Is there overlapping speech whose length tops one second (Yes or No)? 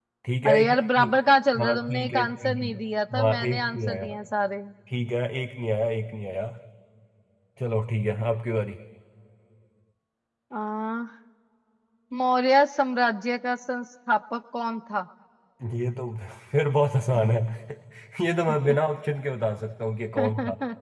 Yes